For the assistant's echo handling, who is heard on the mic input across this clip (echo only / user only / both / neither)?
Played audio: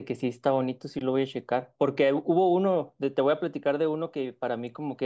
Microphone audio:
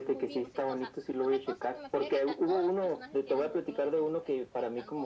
both